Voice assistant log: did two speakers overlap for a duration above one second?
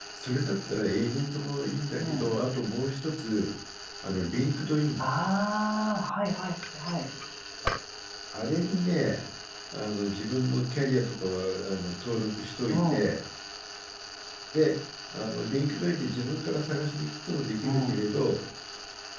No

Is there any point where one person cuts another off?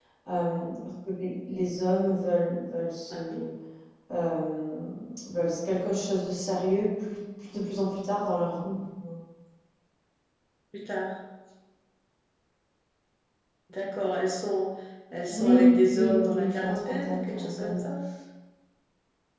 Yes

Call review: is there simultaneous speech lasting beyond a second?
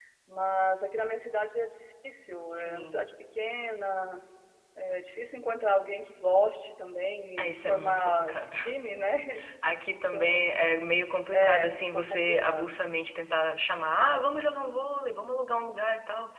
Yes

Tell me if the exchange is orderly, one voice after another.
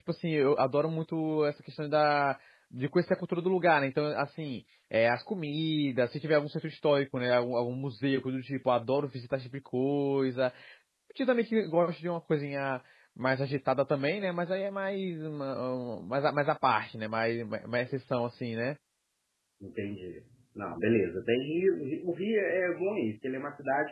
Yes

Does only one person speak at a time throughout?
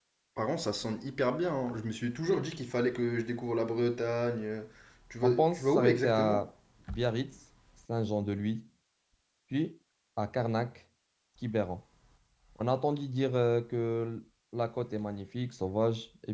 No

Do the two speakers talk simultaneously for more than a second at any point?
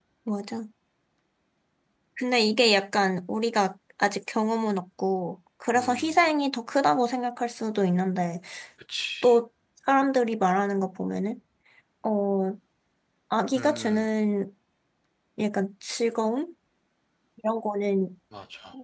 No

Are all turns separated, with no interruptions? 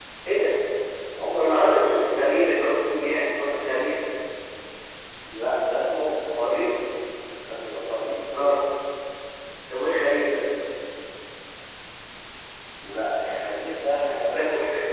No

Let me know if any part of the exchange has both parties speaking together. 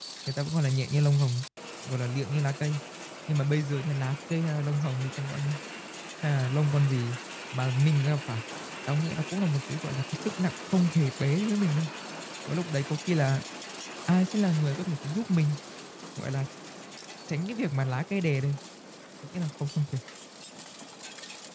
No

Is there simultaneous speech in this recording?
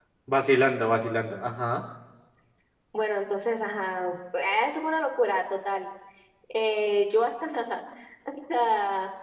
No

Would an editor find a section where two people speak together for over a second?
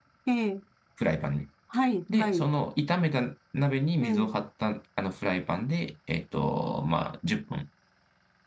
No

